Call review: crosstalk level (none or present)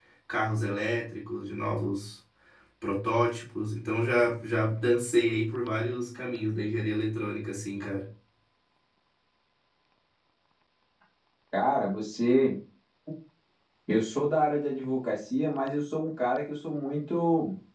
none